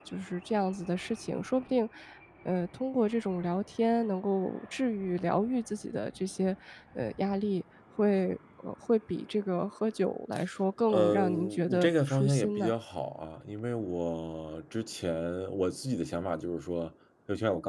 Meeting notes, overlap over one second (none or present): present